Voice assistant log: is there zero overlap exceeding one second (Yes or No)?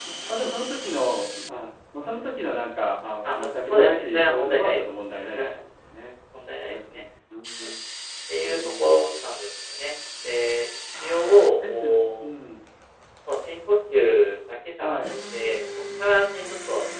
No